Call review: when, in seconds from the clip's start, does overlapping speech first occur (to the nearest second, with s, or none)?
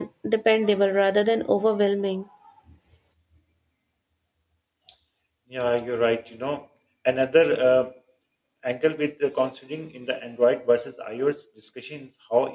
none